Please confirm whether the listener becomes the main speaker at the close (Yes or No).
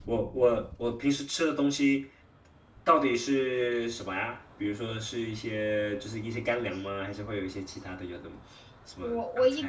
Yes